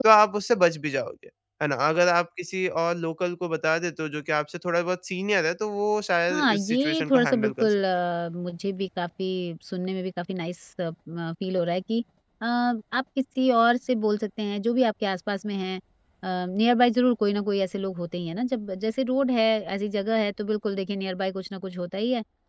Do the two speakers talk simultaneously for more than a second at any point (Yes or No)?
Yes